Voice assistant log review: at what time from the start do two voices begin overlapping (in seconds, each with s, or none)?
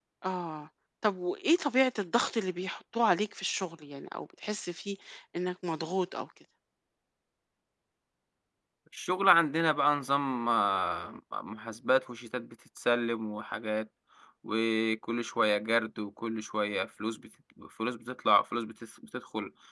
none